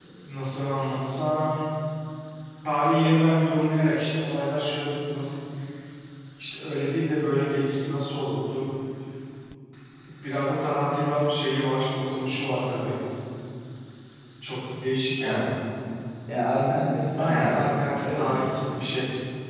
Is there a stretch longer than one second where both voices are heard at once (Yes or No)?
Yes